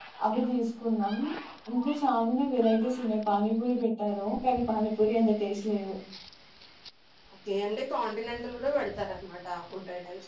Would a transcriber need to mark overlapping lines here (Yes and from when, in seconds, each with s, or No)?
No